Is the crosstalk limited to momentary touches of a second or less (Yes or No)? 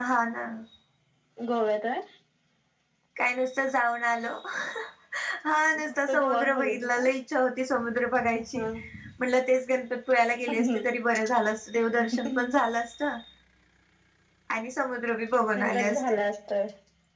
No